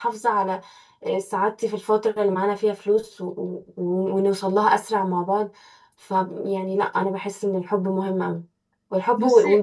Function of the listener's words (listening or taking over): listening